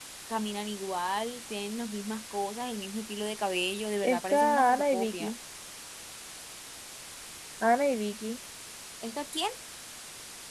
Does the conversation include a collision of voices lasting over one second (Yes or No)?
Yes